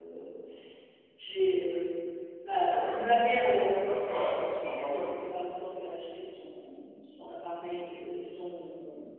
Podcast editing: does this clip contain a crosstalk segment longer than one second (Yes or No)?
Yes